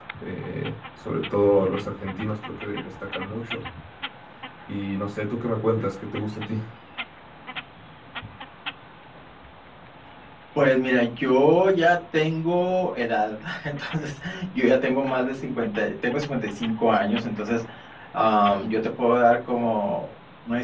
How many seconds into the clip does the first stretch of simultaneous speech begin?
none

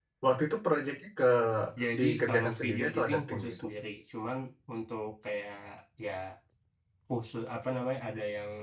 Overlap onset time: 2.0 s

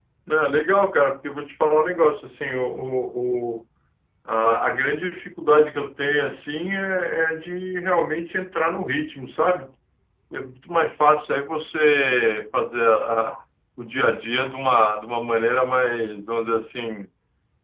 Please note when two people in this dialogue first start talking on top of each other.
none

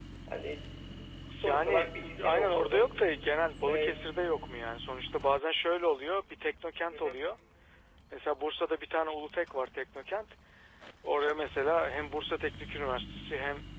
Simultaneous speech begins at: 1.4 s

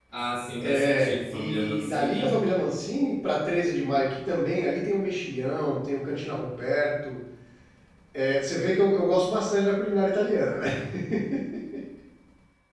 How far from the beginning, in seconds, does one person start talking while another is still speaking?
0.6 s

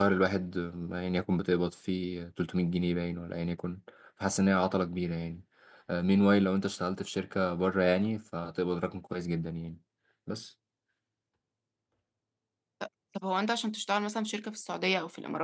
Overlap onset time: none

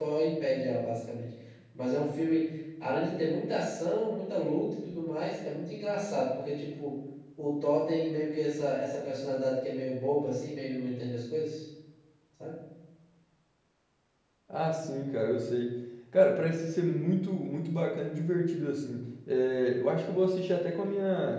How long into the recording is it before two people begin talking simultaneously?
none

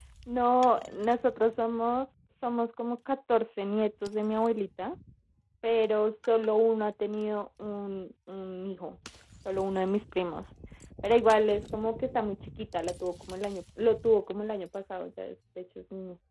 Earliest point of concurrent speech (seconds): none

